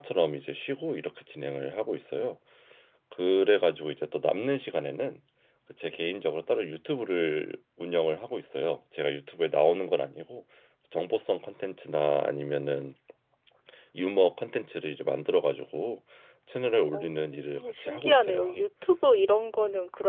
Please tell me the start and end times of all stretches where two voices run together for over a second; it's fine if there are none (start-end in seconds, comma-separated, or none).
16.9-18.5